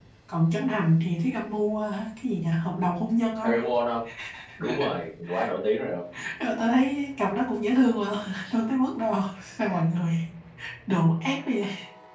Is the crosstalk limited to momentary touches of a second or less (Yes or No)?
Yes